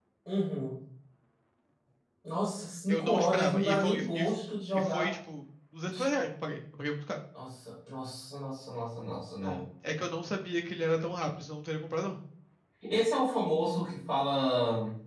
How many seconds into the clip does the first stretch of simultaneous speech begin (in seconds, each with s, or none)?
2.9 s